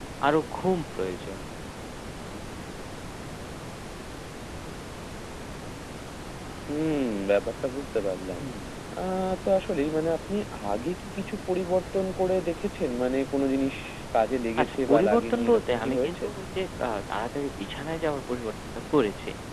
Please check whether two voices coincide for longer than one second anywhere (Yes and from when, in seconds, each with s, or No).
Yes, from 14.6 s